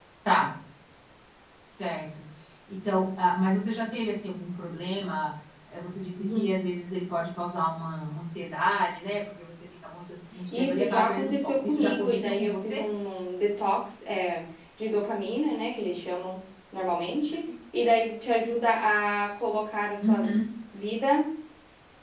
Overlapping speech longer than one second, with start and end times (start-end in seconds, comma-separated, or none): 10.6-12.8